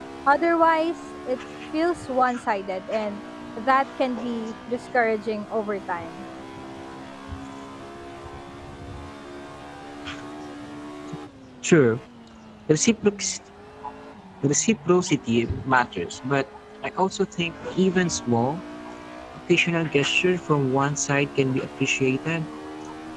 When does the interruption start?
none

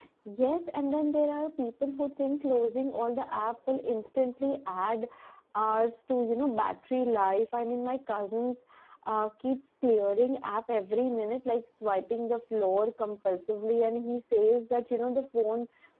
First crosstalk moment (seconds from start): none

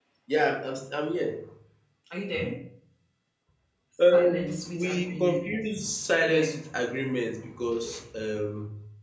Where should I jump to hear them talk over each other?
4.1 s

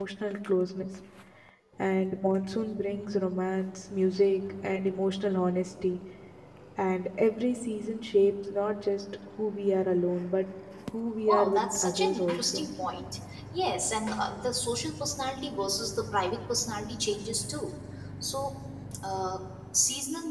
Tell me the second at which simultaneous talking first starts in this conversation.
11.3 s

